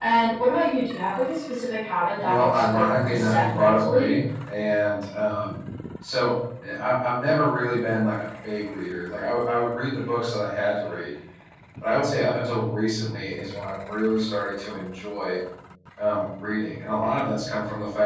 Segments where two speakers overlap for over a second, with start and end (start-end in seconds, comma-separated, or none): 2.2-4.2